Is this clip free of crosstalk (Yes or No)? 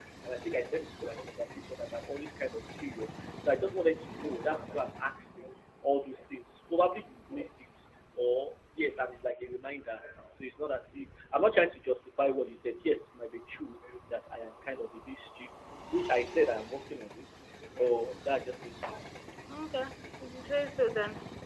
Yes